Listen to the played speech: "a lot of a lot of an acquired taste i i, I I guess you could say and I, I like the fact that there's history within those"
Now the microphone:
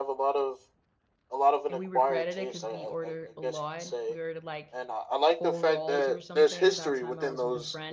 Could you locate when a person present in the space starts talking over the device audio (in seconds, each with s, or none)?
1.7 s